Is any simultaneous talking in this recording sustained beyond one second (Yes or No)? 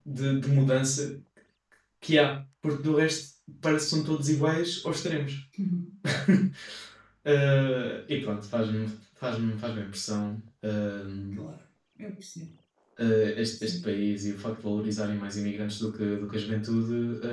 No